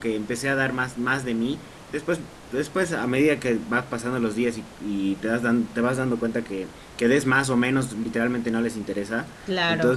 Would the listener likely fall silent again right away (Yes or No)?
Yes